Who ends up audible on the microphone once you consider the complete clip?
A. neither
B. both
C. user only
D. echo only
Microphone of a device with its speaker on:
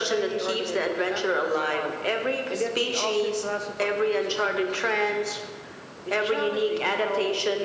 D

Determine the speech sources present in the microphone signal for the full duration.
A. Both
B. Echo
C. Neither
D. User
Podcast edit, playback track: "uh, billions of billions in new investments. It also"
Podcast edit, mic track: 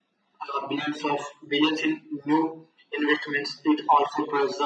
B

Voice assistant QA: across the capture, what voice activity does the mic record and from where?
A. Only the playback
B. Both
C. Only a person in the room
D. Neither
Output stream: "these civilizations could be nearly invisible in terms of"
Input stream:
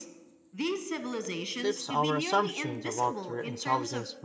B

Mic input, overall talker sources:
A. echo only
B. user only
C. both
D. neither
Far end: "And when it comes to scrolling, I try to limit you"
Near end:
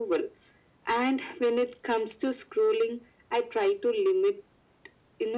A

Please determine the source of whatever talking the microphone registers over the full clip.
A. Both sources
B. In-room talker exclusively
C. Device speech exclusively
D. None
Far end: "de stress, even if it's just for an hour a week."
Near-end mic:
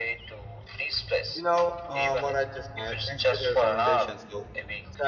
A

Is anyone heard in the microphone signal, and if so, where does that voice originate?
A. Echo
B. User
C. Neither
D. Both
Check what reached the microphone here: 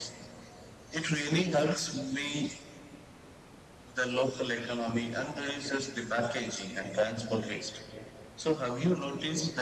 A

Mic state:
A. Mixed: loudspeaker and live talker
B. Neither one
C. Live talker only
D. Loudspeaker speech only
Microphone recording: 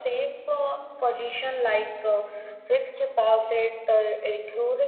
D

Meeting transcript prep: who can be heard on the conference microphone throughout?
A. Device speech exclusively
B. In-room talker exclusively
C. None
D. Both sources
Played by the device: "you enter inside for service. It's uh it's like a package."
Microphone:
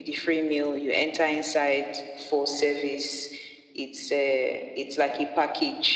A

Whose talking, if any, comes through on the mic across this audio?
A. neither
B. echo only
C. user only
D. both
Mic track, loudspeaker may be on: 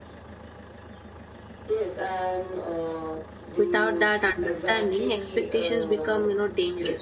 D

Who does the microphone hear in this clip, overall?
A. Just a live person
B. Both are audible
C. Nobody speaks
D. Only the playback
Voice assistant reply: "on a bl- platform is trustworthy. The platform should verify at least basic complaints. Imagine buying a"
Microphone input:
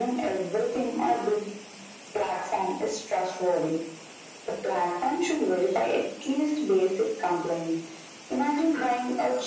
D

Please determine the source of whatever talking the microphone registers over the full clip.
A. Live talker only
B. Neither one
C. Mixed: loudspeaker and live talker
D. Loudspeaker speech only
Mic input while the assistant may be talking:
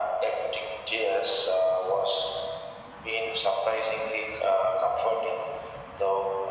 D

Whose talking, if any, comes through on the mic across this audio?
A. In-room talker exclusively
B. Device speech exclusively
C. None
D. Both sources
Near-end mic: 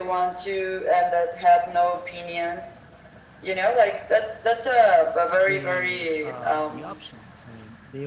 D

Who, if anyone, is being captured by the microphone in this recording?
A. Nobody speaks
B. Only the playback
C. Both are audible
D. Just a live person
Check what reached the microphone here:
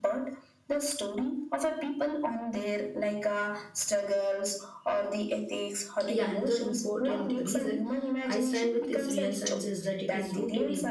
C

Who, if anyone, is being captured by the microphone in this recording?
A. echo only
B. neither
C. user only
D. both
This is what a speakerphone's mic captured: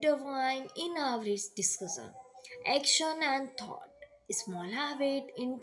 C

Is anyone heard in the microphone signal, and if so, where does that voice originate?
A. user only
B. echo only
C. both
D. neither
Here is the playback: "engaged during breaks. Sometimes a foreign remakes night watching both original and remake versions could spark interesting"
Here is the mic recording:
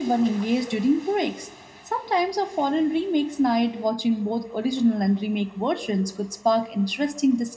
B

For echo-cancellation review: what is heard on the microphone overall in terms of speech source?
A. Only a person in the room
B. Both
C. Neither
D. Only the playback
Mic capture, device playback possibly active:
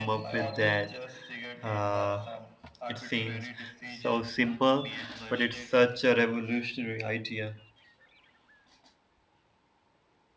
B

